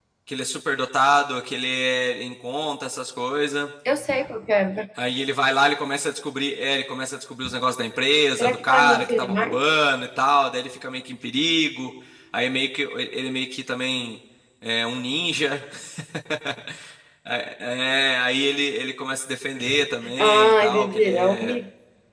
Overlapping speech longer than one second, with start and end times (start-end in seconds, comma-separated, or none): 8.4-9.6, 20.2-21.6